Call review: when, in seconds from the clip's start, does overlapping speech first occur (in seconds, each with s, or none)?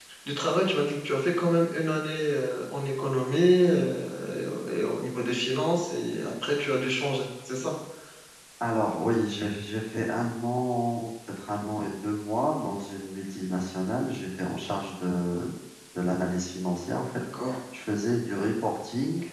none